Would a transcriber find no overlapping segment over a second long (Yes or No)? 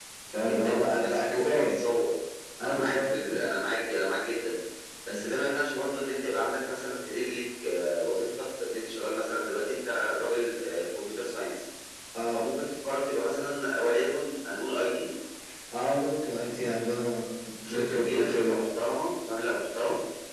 No